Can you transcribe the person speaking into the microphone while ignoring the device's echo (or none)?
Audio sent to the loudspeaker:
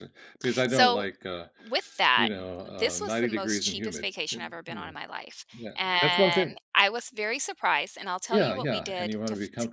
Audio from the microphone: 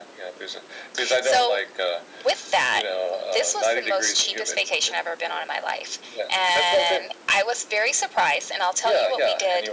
none